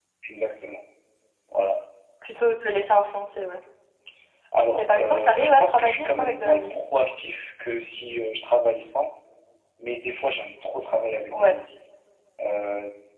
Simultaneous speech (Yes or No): Yes